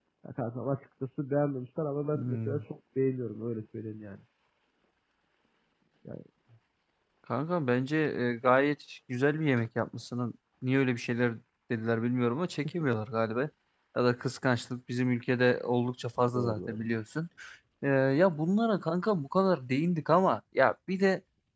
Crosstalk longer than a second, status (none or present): none